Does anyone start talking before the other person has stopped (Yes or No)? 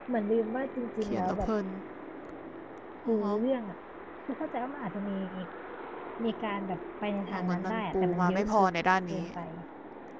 Yes